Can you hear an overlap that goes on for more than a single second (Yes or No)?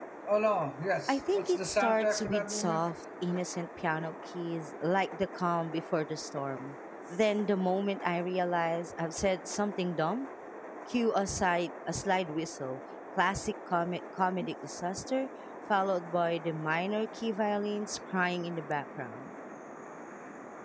Yes